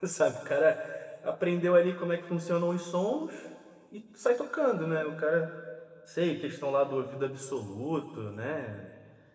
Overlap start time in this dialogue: none

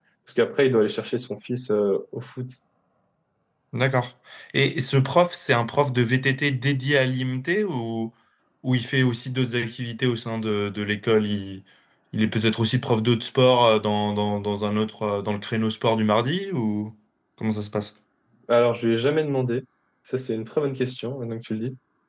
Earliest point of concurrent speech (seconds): none

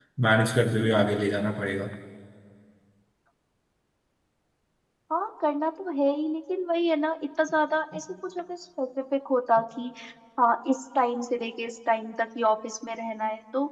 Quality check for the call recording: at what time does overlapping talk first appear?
none

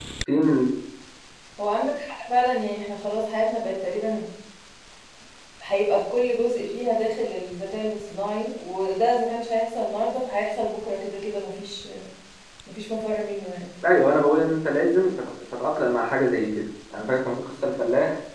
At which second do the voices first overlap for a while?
none

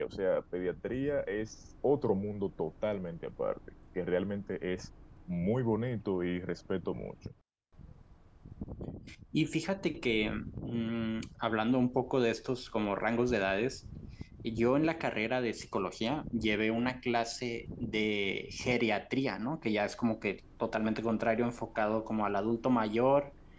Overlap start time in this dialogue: none

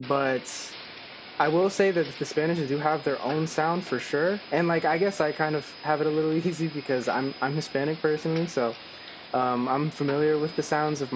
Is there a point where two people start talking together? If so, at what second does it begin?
none

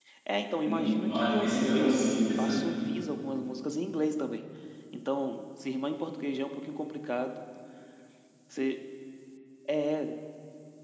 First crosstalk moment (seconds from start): 1 s

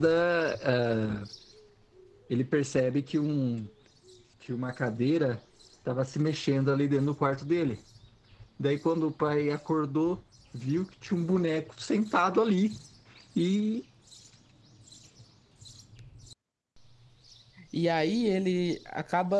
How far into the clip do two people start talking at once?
none

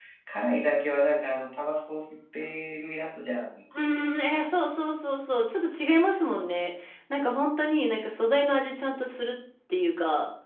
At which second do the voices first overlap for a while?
none

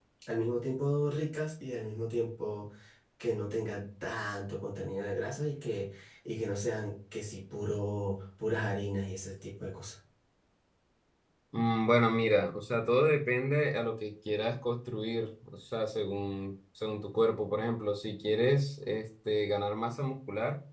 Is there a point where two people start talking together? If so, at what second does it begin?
none

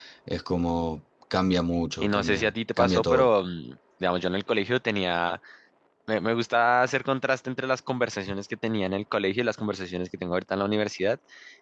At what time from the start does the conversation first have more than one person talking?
2 s

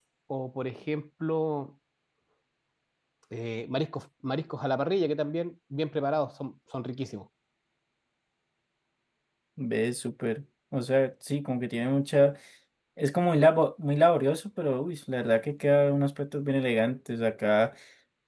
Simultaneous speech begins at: none

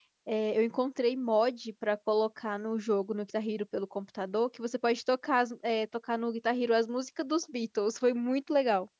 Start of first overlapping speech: none

